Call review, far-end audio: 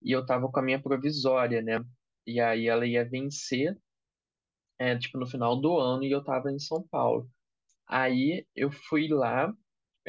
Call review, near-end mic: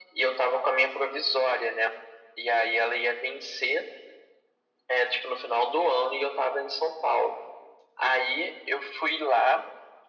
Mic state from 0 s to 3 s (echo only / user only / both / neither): echo only